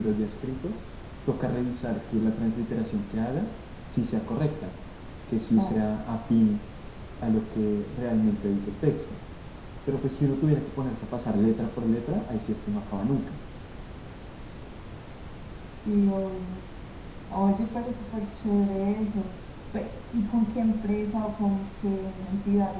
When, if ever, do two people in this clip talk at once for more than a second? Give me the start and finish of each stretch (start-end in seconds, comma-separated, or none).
none